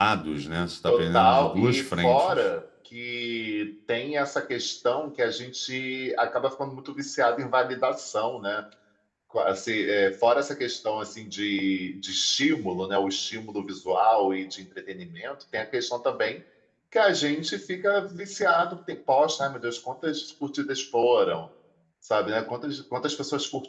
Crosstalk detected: Yes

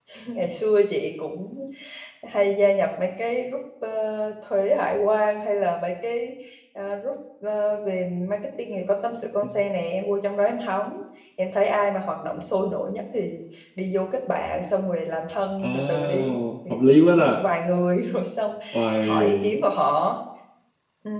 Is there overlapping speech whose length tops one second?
Yes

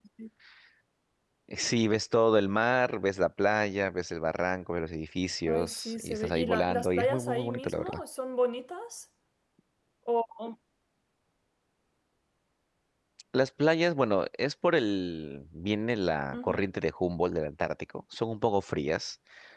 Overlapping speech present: Yes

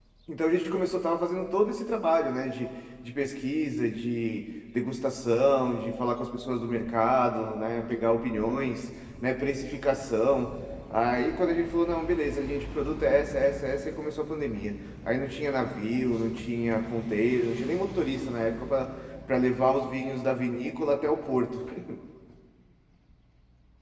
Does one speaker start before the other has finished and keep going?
No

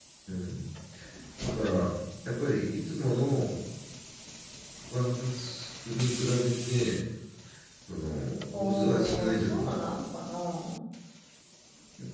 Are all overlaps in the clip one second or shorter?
No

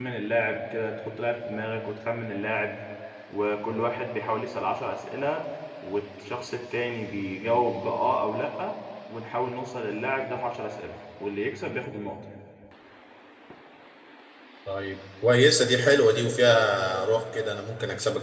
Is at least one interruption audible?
No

